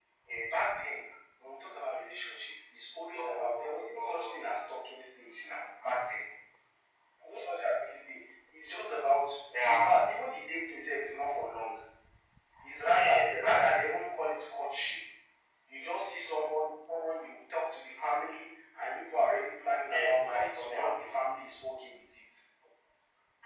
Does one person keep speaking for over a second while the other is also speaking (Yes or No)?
Yes